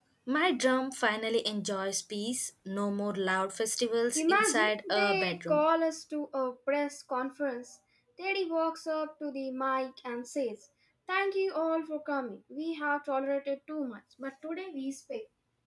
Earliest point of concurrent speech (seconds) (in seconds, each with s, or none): 4.2 s